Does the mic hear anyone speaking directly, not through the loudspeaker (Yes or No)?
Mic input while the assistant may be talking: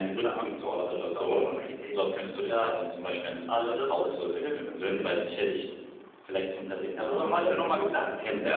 No